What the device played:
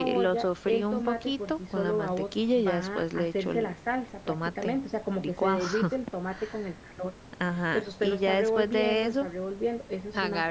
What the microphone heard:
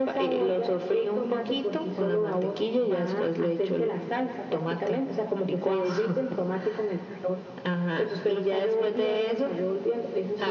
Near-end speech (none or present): none